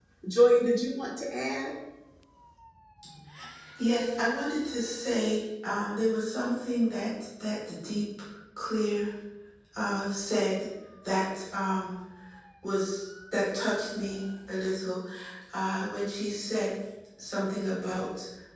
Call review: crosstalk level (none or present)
none